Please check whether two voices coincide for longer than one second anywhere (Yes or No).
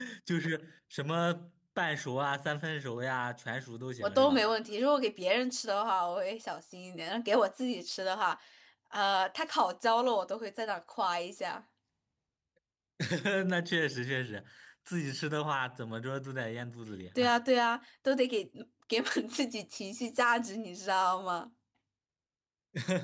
No